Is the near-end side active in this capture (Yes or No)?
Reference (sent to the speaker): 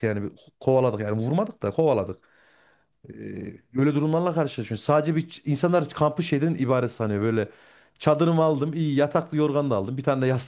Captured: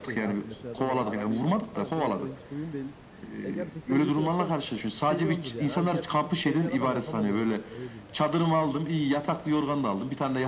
Yes